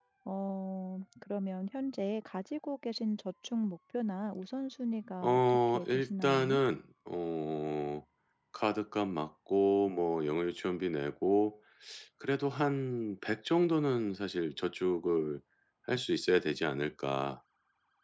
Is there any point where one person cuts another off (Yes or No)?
Yes